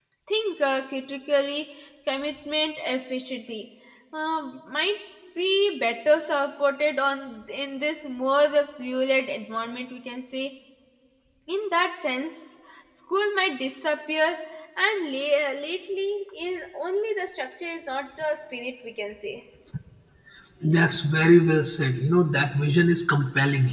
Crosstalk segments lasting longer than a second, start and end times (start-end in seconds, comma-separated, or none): none